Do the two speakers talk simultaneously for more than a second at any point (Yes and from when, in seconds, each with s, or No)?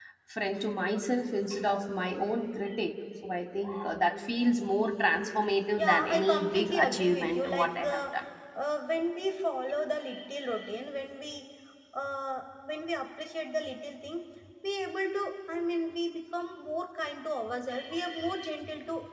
Yes, from 5.7 s